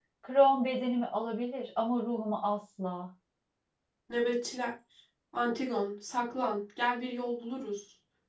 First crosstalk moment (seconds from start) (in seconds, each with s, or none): none